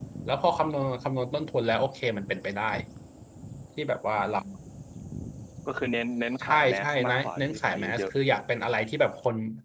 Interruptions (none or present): present